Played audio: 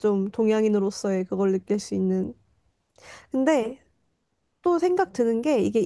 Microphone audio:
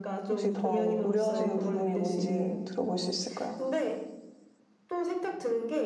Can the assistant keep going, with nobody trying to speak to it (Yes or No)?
No